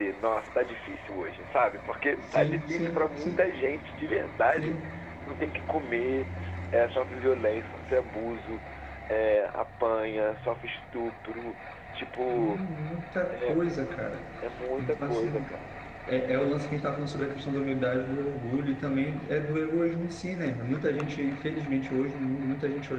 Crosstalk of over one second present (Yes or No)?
Yes